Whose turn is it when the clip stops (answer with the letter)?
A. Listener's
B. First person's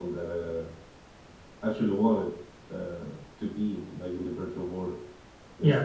A